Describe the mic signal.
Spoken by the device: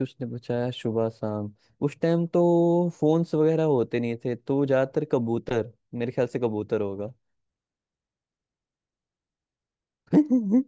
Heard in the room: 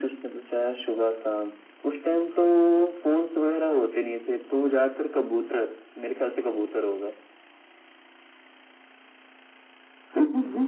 echo only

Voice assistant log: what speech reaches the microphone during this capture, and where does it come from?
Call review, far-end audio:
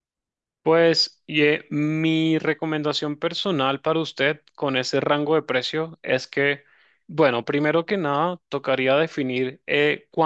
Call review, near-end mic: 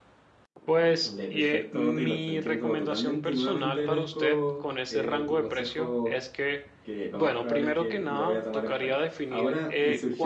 both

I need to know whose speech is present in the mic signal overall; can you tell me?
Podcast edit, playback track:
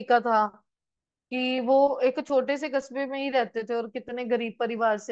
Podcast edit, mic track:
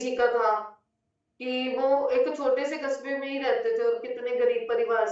echo only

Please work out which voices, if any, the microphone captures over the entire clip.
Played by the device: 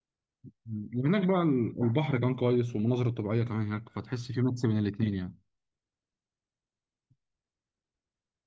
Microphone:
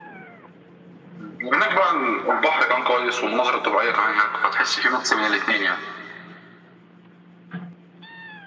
echo only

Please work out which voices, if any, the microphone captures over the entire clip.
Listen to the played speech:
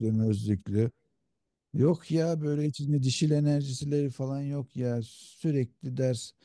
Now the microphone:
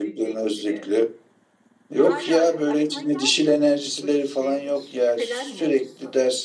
both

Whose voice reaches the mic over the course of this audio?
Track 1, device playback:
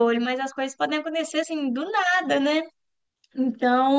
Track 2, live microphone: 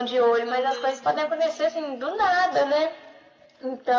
both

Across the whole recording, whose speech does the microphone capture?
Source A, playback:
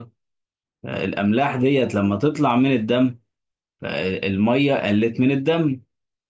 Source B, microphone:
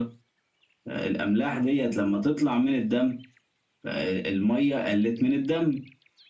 echo only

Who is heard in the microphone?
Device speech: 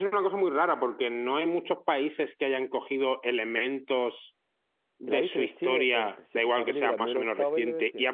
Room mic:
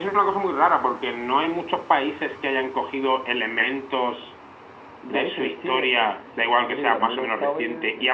echo only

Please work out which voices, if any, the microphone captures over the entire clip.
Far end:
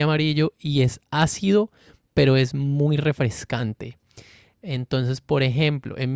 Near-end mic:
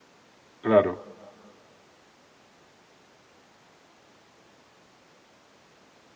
user only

